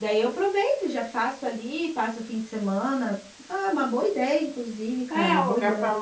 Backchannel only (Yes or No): No